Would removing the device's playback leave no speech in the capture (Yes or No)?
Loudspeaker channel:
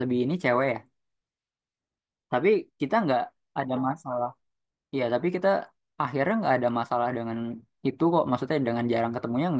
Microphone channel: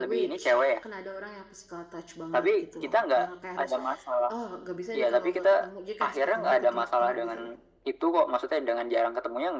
No